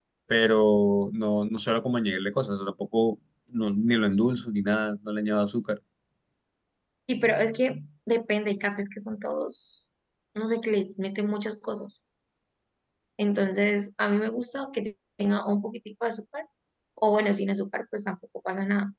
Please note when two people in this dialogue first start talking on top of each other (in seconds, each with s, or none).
none